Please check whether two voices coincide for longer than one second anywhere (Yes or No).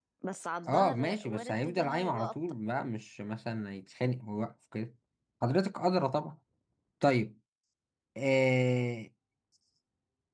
Yes